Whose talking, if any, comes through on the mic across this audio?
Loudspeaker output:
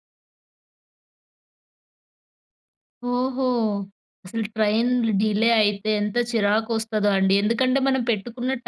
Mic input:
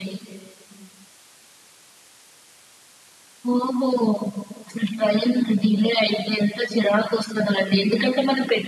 echo only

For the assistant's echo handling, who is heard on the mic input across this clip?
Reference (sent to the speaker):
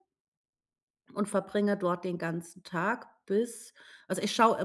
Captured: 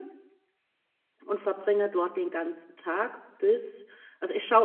echo only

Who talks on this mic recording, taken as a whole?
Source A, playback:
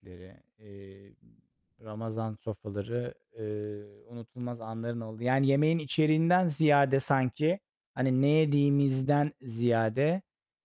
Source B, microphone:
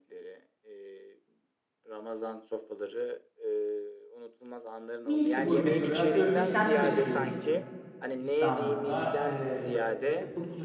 both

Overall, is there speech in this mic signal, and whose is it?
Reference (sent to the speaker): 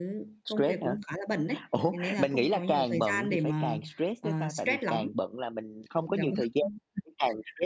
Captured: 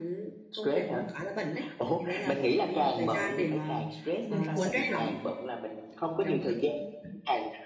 both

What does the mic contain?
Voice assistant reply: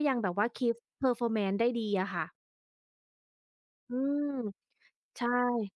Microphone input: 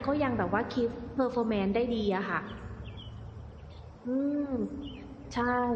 echo only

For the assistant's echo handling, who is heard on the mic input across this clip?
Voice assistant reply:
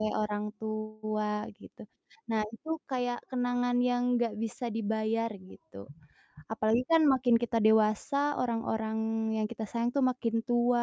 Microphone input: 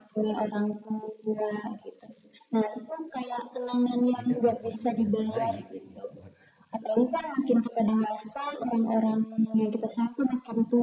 both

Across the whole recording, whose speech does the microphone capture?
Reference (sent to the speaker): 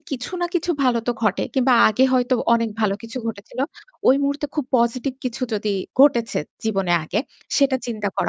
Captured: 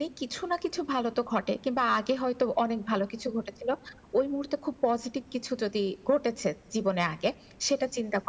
echo only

